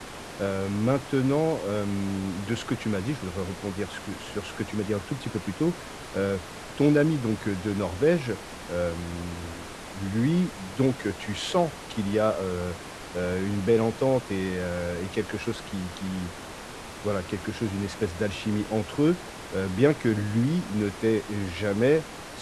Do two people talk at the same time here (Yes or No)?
No